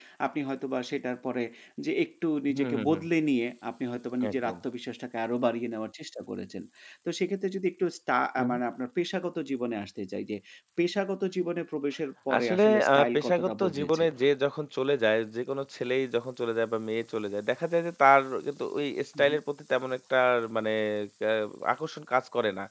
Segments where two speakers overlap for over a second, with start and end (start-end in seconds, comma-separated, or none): 12.4-14.0